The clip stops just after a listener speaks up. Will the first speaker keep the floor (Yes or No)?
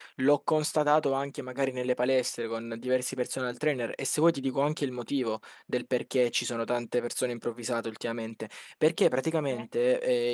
Yes